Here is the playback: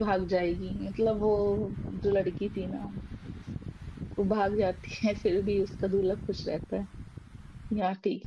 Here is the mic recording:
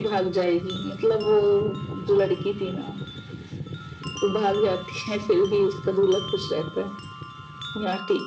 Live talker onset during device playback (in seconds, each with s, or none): none